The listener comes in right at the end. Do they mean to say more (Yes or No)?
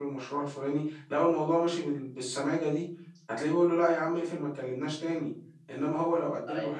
No